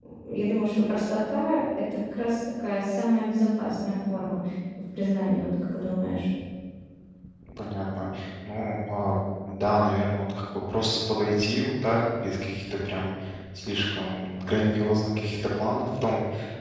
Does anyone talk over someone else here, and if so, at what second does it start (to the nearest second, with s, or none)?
none